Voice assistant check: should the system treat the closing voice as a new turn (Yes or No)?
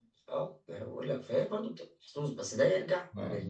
No